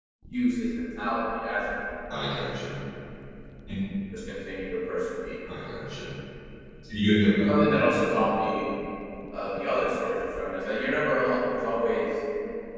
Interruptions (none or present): none